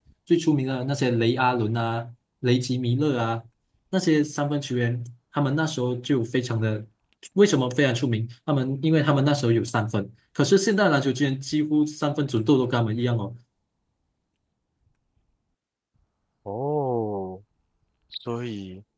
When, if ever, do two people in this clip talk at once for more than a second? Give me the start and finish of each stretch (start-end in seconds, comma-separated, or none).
none